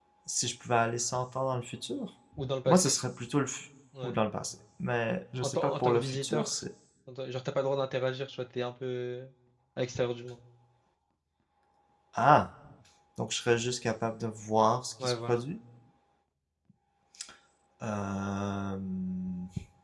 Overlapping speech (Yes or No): Yes